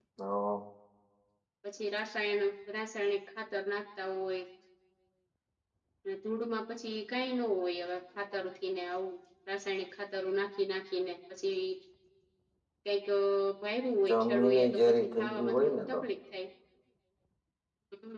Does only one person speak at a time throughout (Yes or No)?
No